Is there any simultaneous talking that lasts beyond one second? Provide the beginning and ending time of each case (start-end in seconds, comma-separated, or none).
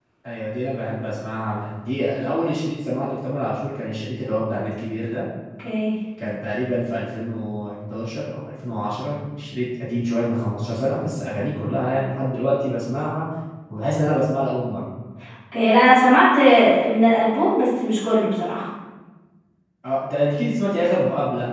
none